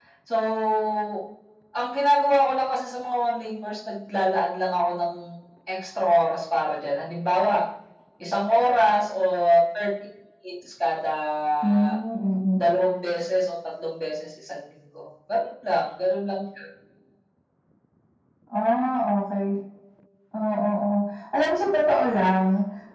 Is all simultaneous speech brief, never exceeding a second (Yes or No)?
Yes